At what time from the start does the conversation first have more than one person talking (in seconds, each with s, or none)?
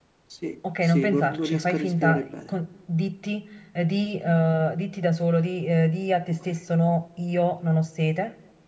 0.8 s